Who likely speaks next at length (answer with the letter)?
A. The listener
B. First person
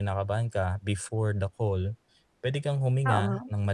B